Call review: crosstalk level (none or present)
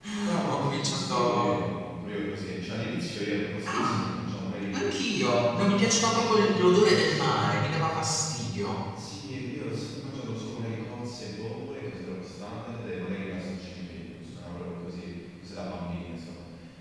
present